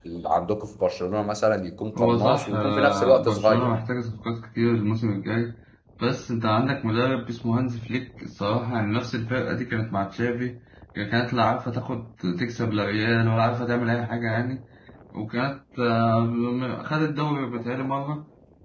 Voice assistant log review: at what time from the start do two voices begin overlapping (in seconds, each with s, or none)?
2.0 s